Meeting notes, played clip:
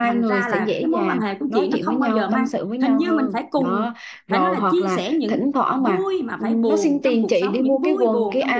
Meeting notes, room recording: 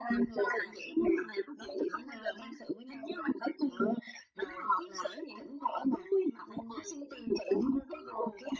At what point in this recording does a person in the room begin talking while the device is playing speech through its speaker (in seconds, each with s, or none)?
none